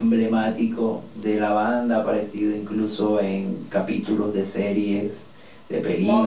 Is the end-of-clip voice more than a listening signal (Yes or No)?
Yes